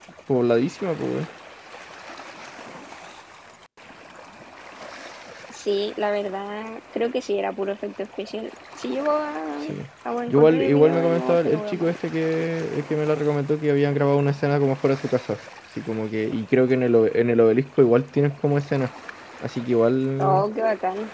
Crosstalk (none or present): present